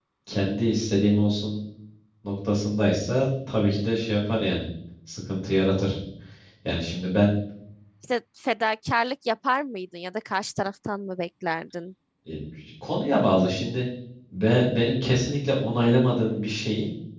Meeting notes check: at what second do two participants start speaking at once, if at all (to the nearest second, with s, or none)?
none